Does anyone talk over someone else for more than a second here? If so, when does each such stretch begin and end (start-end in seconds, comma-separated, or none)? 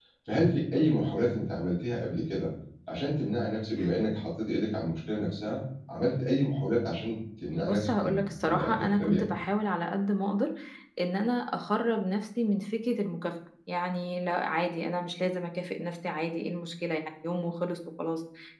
7.6-9.2